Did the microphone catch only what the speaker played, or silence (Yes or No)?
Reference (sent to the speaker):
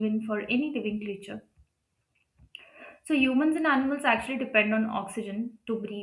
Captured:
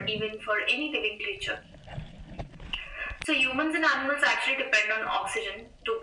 Yes